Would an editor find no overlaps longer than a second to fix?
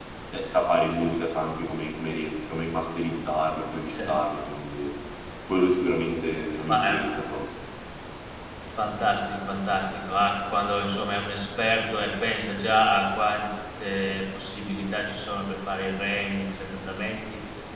Yes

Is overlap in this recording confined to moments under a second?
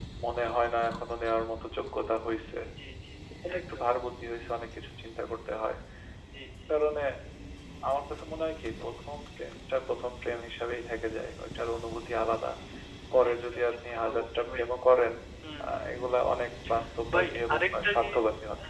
No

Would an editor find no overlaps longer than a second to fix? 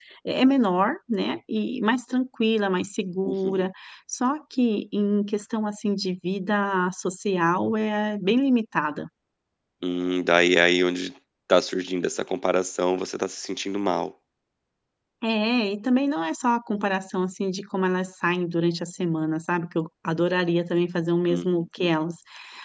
Yes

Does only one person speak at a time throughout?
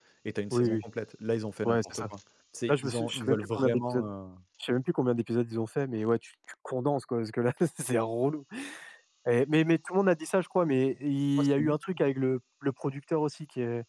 No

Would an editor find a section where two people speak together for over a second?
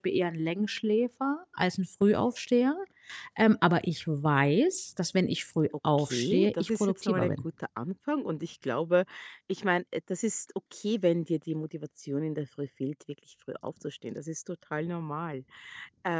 Yes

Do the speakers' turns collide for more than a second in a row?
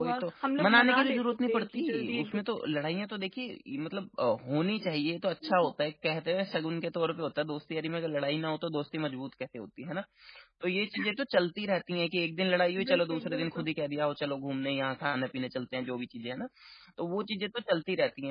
Yes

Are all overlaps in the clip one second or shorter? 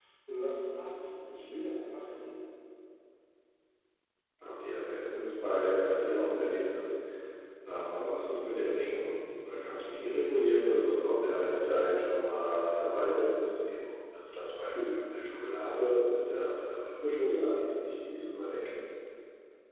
Yes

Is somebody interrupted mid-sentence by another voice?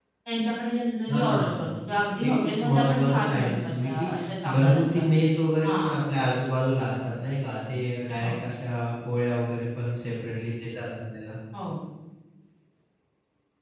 Yes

